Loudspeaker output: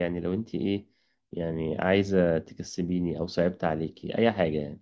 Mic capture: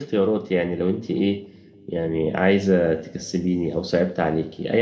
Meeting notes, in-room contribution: none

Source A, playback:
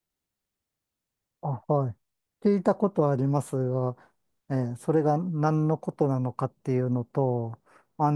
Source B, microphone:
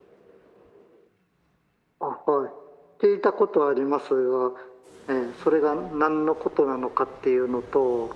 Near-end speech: none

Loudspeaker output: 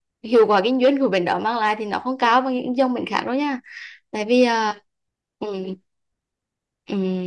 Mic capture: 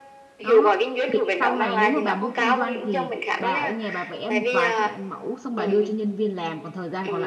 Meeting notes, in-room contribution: present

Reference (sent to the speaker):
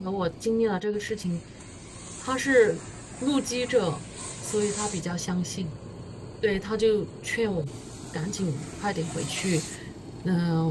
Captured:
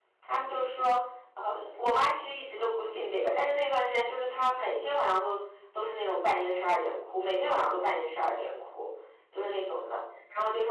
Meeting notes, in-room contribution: present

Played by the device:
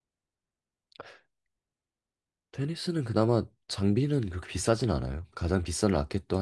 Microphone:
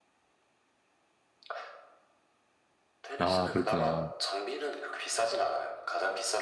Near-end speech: present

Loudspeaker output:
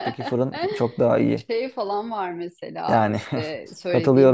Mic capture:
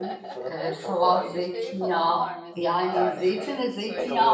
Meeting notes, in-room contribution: present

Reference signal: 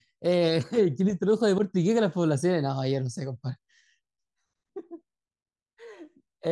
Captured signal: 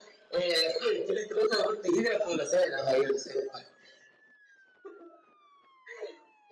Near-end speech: none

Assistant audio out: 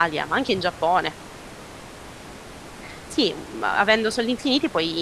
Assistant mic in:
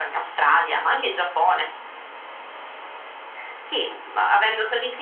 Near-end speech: none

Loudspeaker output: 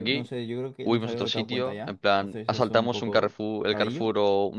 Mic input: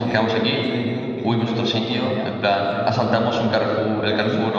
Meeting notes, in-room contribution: none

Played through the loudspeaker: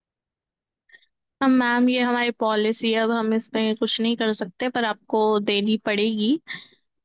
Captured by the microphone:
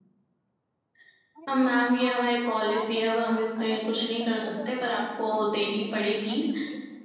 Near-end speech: present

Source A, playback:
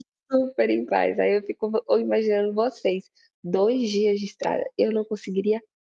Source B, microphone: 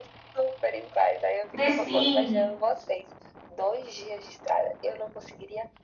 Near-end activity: present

